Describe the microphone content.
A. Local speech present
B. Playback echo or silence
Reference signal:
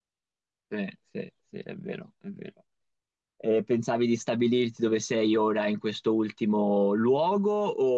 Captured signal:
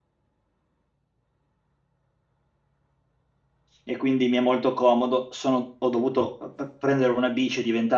A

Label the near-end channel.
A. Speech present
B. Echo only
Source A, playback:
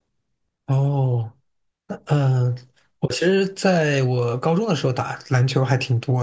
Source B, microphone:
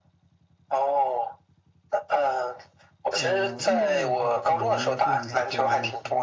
A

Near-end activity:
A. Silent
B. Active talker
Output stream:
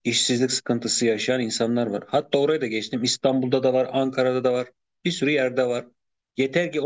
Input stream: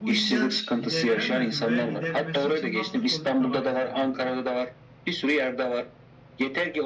B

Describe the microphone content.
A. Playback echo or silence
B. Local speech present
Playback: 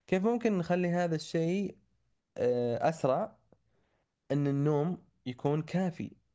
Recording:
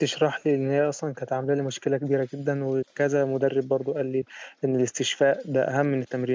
B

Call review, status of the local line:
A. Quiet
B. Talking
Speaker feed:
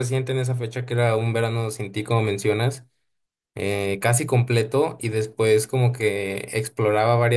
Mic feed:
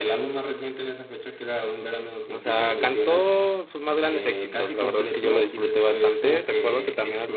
B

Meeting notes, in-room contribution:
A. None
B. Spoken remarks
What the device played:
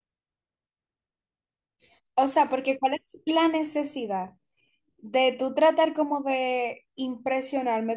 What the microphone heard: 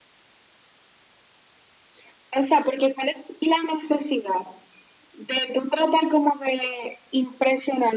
A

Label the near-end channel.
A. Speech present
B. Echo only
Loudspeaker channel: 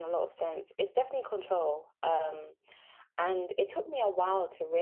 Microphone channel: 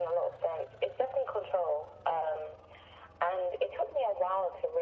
B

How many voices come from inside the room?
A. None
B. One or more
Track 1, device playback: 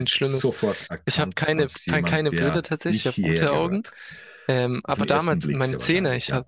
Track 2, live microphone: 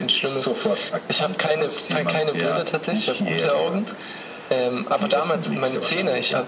A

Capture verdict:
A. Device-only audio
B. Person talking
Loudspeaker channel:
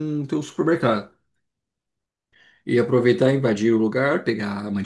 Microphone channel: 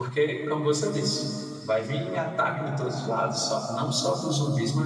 B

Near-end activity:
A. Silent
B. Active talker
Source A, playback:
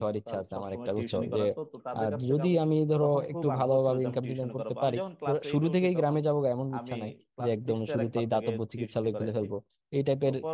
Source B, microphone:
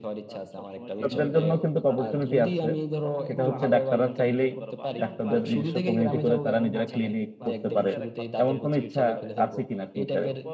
B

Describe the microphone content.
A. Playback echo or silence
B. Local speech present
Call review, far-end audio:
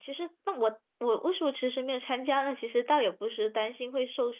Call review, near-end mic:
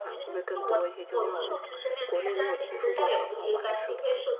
B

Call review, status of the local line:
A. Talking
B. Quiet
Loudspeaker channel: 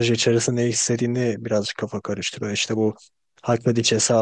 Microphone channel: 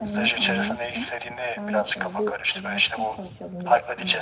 A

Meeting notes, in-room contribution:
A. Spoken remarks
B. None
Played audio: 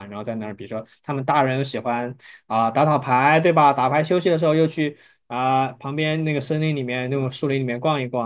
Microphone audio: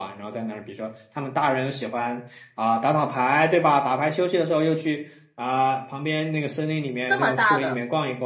A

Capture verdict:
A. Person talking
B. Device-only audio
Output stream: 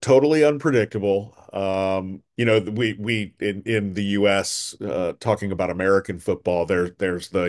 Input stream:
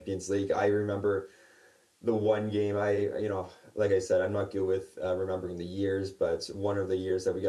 A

